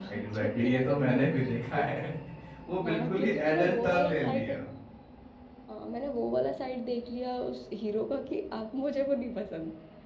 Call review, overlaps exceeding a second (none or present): present